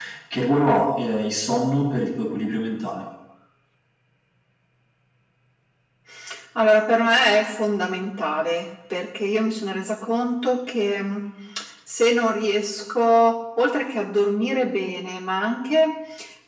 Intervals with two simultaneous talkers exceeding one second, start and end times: none

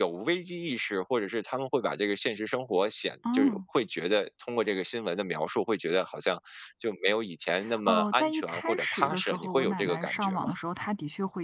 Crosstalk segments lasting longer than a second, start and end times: 7.9-10.5

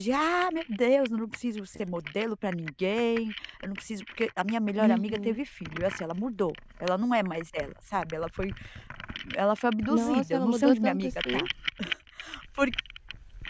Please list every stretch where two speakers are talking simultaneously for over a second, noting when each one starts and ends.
9.9-11.5

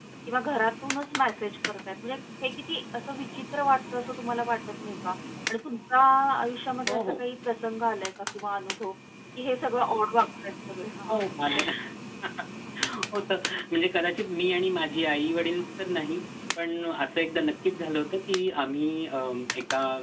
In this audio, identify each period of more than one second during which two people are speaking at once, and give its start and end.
none

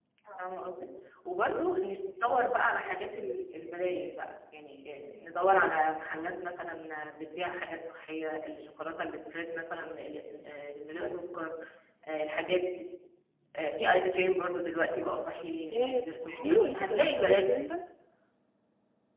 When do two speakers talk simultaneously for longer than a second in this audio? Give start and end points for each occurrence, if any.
15.7-17.4

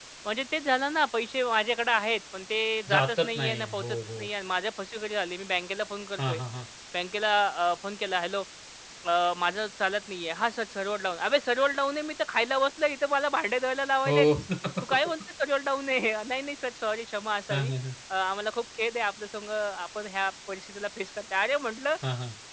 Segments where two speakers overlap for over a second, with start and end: 2.9-4.3

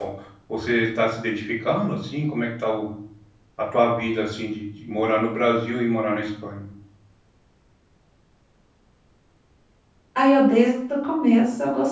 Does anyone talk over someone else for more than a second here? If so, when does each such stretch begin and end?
none

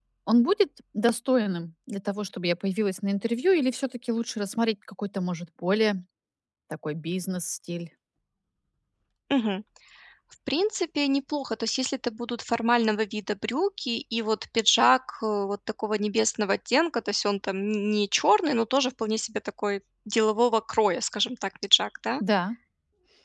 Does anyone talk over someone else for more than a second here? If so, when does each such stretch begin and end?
none

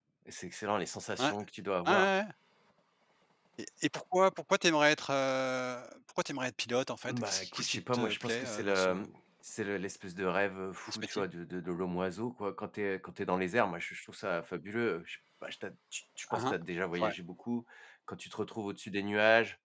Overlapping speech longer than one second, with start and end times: 7.1-8.9

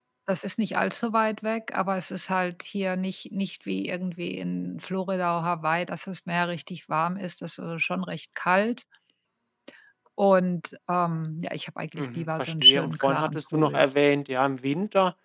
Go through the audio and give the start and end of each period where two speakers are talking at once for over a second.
12.0-13.9

